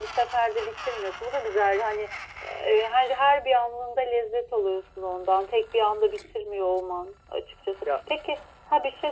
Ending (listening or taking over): listening